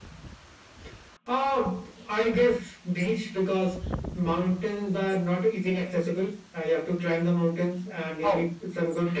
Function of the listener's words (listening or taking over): listening